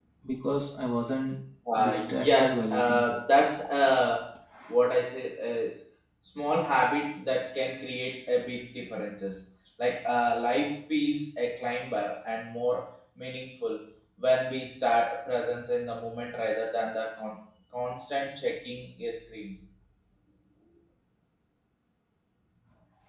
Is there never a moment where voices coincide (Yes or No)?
No